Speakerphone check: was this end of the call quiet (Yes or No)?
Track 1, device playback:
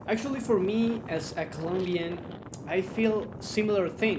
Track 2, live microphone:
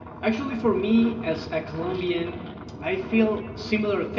Yes